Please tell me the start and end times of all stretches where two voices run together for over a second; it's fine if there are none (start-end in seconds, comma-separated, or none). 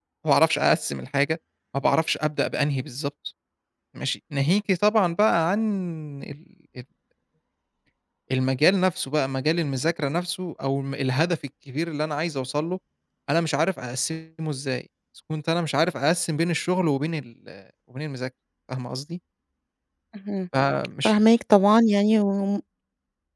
none